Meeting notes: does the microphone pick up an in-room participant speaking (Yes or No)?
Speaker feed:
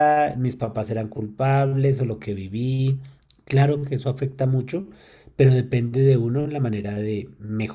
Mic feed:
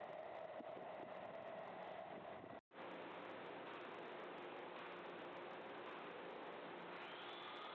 No